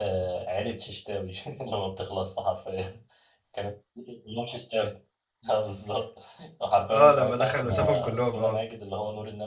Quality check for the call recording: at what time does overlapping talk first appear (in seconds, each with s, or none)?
6.9 s